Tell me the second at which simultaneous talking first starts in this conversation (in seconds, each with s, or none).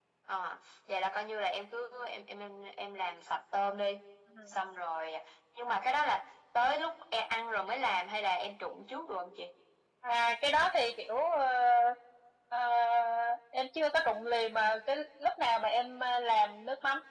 none